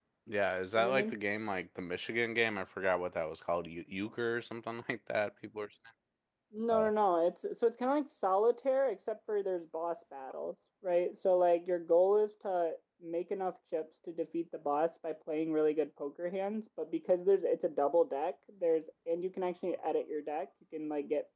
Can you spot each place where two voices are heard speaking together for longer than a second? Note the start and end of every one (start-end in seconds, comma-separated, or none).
none